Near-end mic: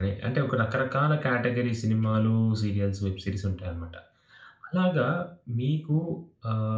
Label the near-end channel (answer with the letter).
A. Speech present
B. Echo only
A